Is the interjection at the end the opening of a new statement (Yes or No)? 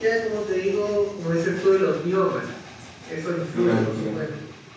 Yes